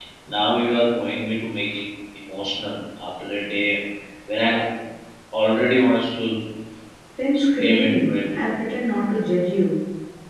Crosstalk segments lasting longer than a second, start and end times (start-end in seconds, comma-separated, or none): 7.3-8.6